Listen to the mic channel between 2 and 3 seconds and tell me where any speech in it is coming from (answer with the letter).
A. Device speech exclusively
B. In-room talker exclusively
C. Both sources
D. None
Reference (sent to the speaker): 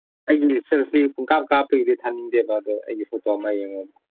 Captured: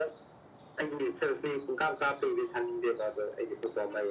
A